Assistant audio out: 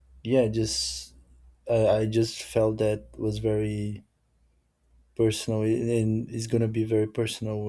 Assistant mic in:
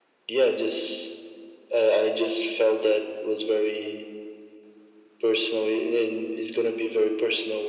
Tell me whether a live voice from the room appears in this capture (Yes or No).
No